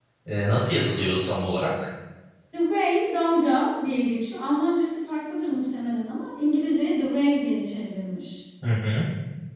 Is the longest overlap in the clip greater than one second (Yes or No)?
No